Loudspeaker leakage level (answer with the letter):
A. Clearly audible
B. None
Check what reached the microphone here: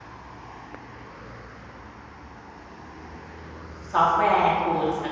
B